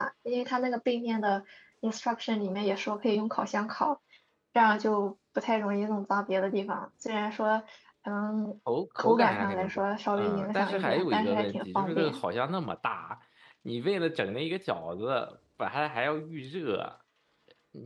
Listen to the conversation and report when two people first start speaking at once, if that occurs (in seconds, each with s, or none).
9.0 s